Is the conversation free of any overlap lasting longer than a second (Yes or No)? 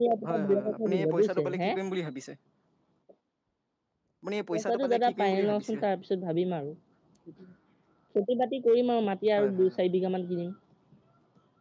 No